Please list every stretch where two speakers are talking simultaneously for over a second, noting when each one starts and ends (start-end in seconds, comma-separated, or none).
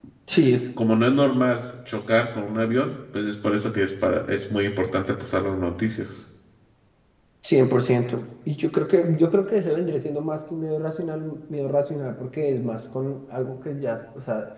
none